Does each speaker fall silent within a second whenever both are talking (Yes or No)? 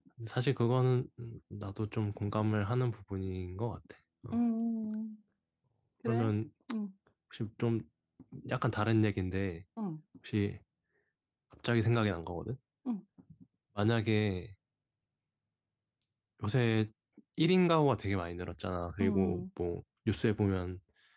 Yes